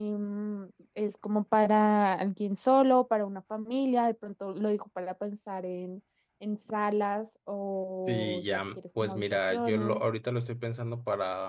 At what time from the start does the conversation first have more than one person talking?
8.0 s

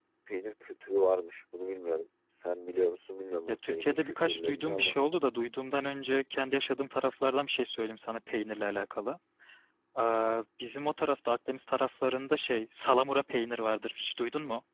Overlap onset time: 3.5 s

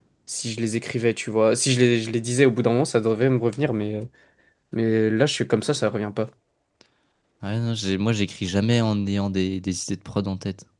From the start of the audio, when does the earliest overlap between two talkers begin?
none

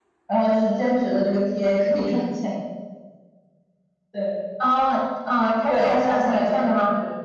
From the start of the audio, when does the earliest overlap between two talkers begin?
5.7 s

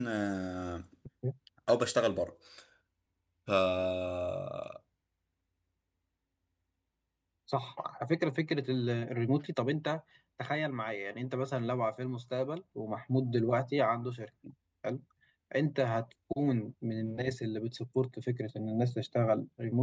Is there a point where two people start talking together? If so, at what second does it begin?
none

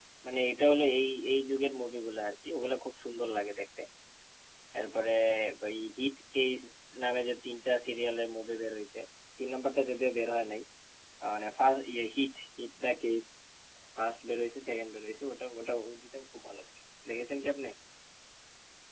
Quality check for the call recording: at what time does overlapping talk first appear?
none

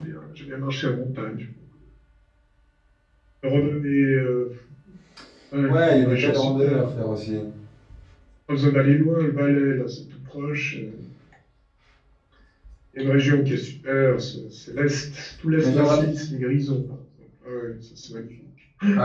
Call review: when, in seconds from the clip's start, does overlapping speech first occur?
5.7 s

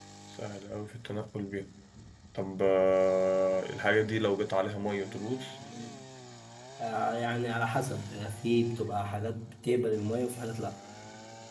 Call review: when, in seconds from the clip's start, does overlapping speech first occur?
none

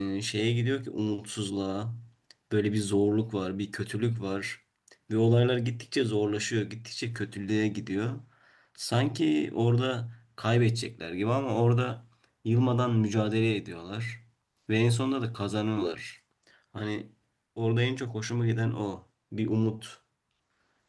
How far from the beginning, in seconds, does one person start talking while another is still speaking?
none

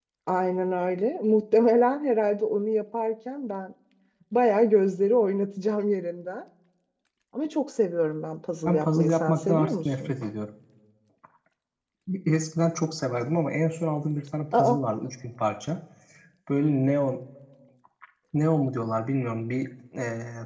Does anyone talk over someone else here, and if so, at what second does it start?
8.6 s

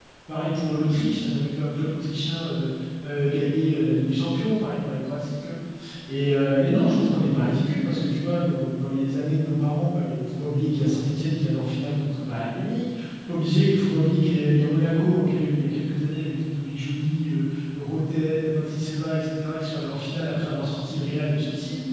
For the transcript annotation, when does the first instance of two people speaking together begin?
none

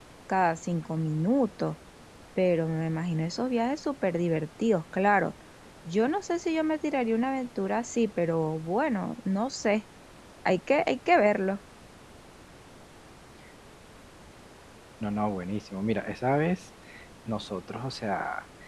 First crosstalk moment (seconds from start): none

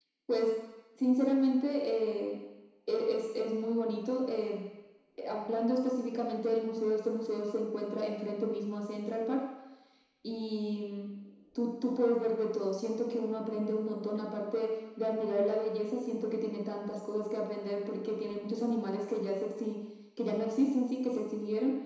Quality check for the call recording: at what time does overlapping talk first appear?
none

